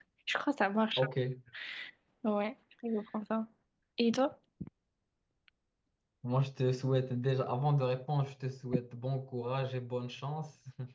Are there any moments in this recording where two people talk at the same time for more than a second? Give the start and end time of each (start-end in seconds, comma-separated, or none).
none